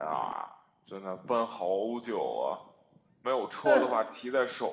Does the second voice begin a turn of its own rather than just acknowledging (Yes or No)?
No